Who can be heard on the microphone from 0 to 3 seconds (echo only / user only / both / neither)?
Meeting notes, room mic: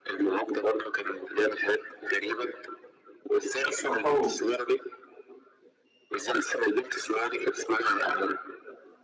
echo only